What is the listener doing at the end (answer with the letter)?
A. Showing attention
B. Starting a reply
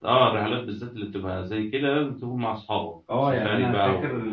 B